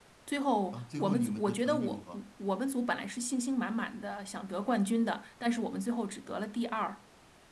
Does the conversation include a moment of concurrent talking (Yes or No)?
Yes